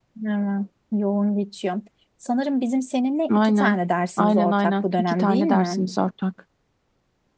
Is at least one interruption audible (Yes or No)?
Yes